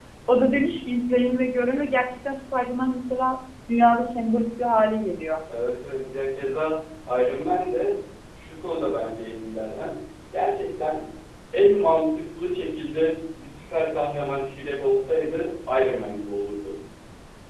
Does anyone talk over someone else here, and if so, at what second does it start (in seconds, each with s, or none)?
none